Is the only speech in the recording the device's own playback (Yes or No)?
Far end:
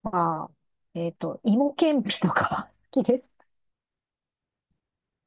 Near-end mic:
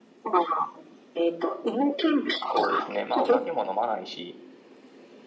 No